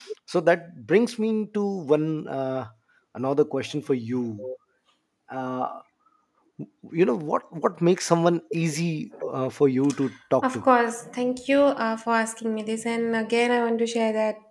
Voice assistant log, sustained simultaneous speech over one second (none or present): none